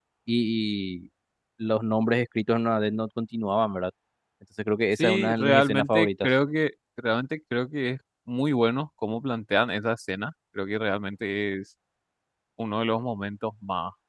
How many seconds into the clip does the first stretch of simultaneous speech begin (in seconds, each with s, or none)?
5.0 s